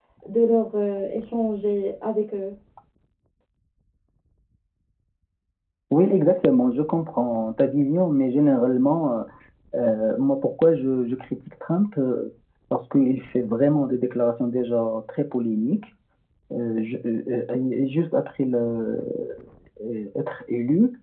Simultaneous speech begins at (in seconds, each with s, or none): none